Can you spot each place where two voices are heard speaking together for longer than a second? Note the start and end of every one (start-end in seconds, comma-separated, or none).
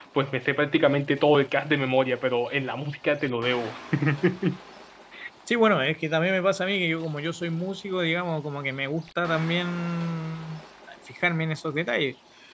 none